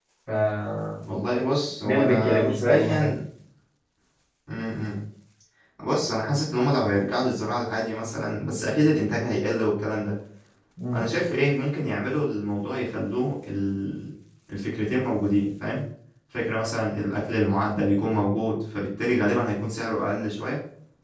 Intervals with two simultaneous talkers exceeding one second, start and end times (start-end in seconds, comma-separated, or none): 1.8-3.1